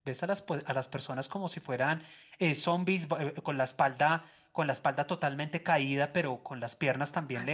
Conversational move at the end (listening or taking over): listening